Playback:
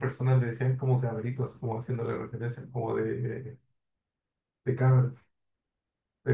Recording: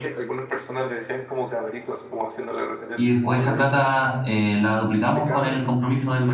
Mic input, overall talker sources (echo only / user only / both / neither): both